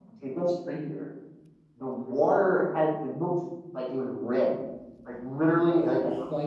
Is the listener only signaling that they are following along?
Yes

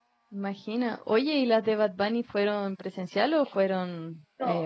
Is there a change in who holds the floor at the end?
Yes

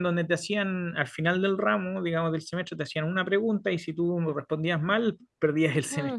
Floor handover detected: Yes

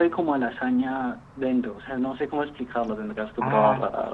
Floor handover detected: Yes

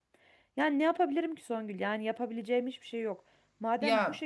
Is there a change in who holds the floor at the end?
No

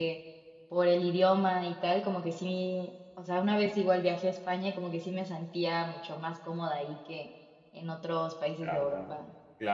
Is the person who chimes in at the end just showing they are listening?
No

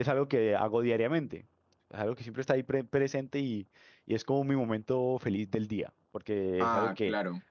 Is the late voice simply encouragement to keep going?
Yes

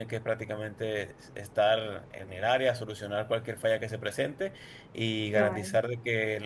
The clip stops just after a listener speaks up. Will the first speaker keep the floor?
Yes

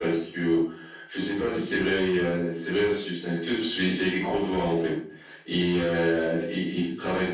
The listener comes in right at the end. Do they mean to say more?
No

